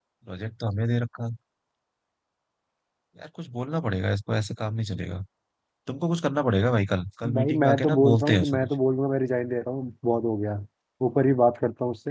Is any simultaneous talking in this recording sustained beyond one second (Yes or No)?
Yes